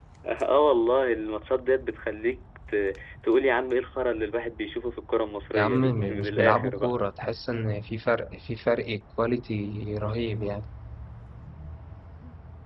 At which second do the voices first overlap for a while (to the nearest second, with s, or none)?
6 s